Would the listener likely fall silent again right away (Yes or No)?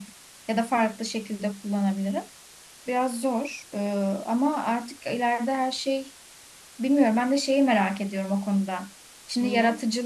Yes